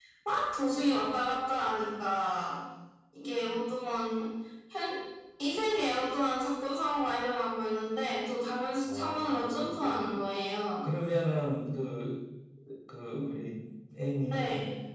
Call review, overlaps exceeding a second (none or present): present